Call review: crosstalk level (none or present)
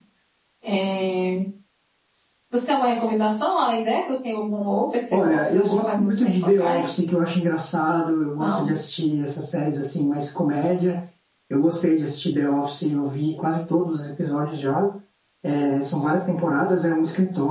present